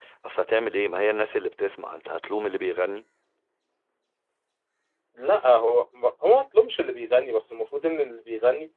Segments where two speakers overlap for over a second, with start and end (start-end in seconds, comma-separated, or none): none